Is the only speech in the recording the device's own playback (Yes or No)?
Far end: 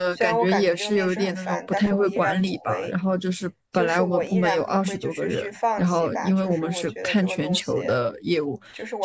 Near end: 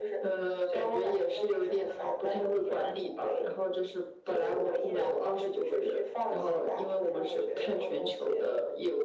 Yes